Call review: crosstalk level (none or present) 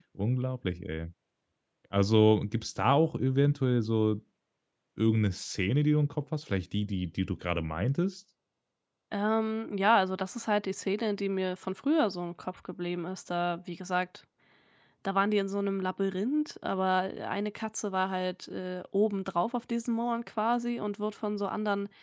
none